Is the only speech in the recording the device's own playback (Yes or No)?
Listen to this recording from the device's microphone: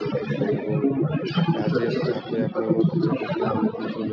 No